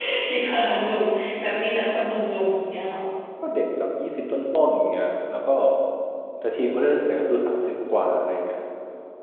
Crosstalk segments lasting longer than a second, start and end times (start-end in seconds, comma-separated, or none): none